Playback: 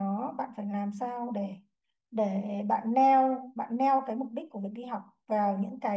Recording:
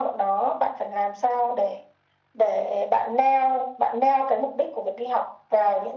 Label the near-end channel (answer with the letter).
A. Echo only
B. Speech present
A